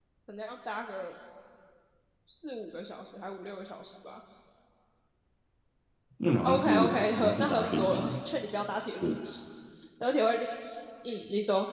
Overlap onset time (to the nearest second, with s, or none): 6 s